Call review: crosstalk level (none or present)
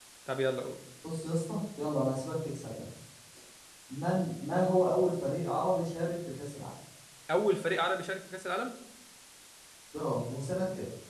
none